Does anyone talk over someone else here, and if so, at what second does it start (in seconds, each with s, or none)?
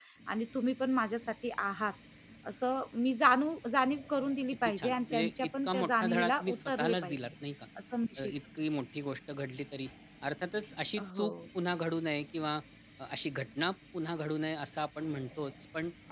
4.6 s